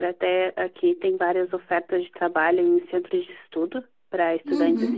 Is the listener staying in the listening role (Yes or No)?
Yes